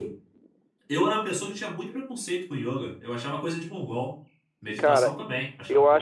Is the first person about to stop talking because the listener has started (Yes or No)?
Yes